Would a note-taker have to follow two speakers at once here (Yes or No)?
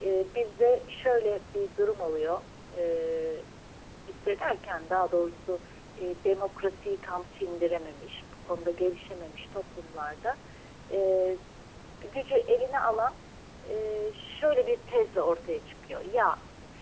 No